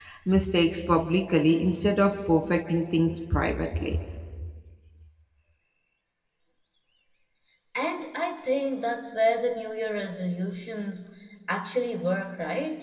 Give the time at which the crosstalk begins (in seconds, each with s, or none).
none